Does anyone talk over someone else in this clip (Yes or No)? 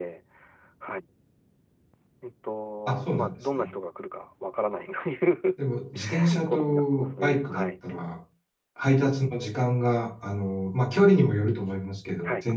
Yes